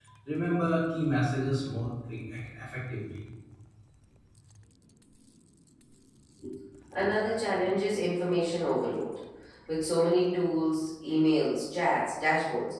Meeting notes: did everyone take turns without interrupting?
Yes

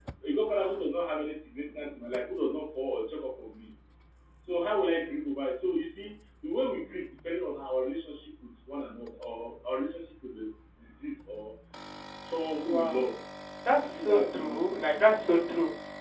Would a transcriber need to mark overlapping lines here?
Yes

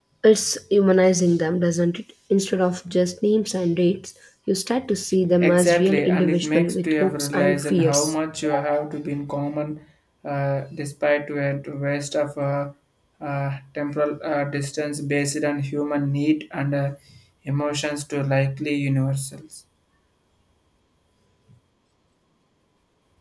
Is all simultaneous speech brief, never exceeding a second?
No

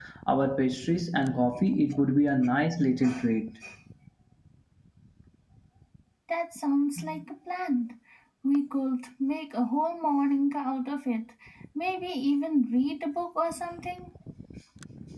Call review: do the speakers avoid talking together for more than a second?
Yes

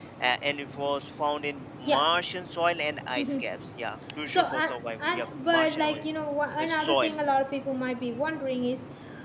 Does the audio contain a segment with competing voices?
Yes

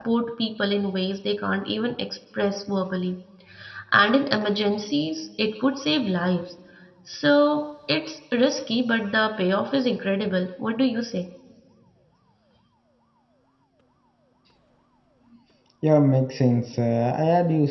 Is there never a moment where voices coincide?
Yes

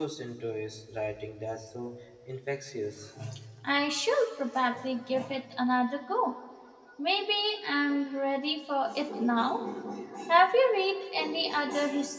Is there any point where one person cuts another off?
No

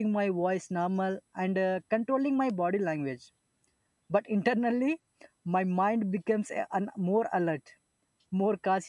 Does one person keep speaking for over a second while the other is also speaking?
No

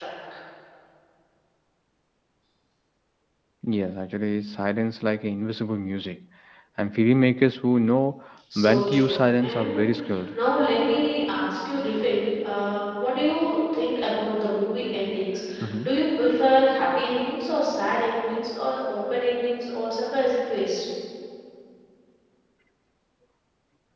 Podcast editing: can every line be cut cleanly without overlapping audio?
No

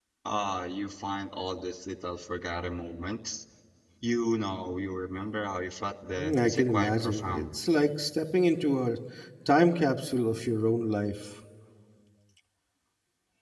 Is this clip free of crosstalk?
No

